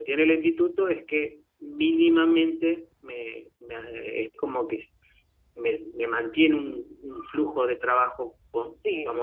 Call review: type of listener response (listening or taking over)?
taking over